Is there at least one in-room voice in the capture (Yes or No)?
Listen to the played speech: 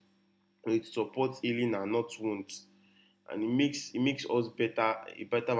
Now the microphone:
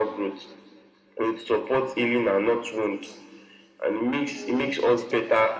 Yes